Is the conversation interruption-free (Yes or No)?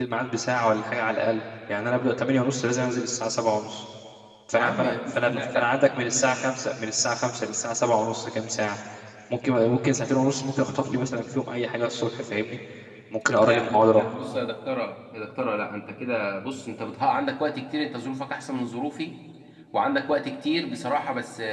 No